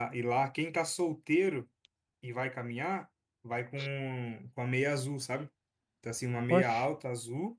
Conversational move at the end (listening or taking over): listening